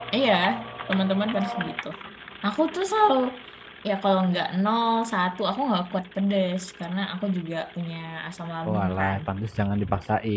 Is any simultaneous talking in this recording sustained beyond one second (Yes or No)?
No